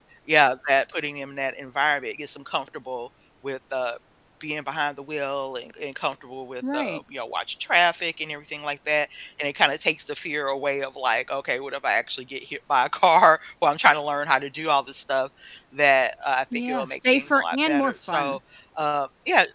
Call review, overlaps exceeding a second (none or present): present